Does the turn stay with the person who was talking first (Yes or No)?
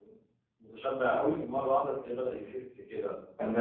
No